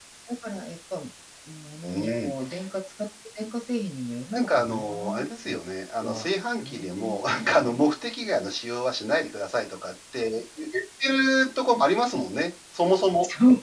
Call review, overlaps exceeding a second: present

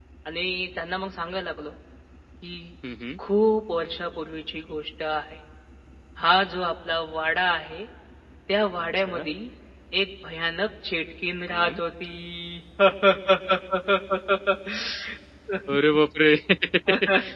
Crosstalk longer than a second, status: none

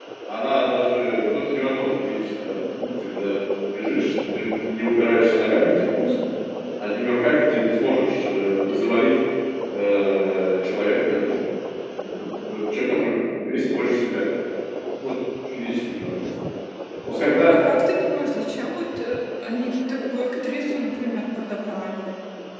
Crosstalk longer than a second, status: none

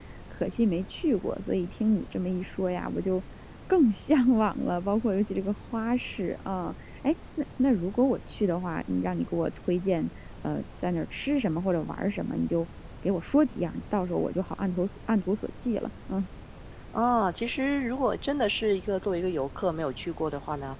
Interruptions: none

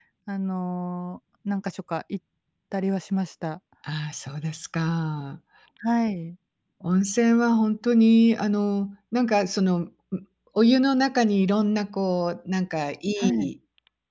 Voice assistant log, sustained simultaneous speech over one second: none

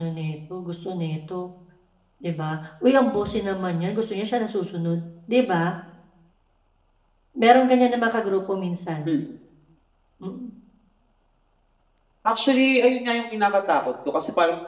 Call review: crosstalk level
none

